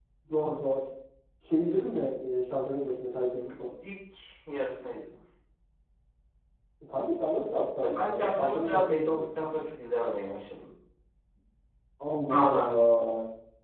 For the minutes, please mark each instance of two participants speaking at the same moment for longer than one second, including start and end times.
7.8-9.6

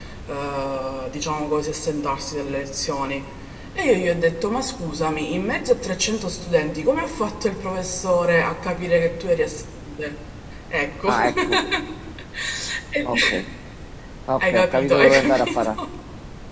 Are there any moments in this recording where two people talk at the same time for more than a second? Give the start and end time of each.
14.4-15.8

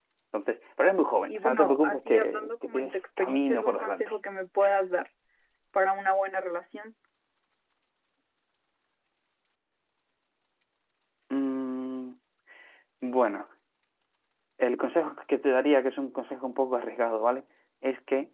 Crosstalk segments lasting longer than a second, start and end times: 1.3-4.1

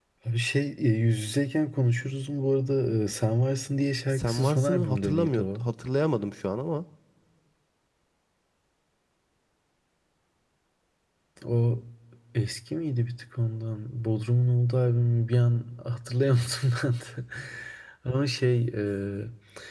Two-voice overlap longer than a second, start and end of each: 4.1-5.6

